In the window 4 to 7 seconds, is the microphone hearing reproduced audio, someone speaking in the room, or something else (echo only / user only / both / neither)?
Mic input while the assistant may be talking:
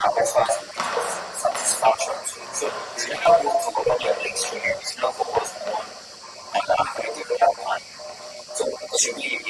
echo only